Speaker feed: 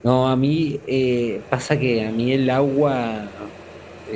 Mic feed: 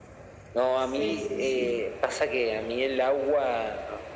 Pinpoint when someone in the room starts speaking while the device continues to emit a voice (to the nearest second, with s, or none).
1 s